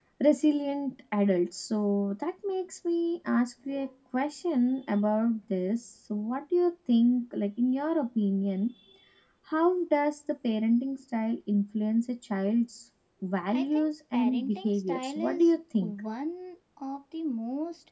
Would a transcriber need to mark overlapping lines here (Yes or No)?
Yes